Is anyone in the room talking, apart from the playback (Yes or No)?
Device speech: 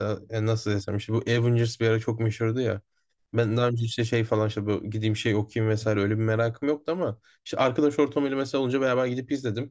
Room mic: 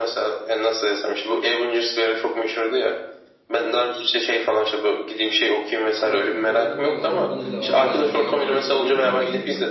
Yes